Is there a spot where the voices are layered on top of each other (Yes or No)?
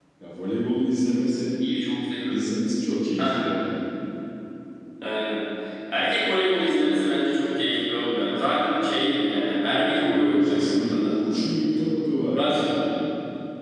Yes